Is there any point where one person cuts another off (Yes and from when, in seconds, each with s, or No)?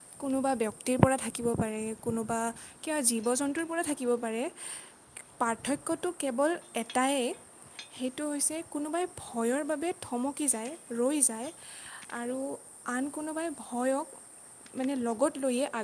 No